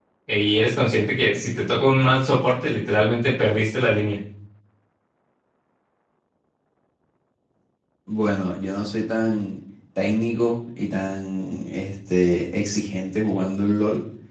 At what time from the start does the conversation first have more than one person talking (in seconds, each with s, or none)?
none